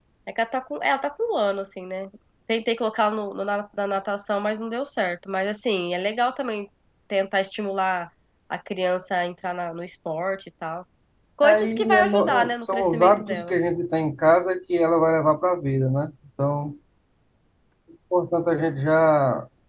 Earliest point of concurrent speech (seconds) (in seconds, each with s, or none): 11.4 s